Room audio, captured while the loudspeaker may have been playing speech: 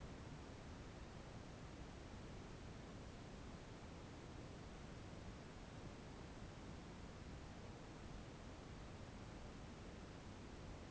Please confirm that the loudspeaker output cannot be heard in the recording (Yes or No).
Yes